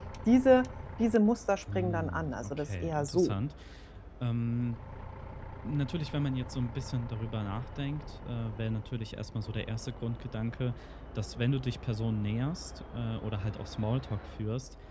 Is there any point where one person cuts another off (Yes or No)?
Yes